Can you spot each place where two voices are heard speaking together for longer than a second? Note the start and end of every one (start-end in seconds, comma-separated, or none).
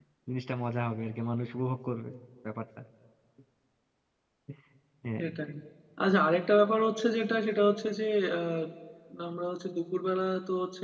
none